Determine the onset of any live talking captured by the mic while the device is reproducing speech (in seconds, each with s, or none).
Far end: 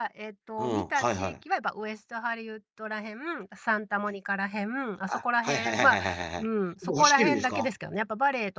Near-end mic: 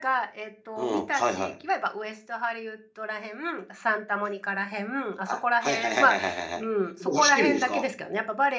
none